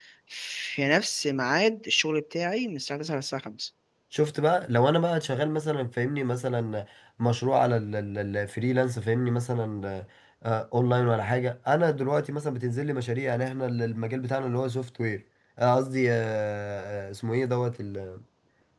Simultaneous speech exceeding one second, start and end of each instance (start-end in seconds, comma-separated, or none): none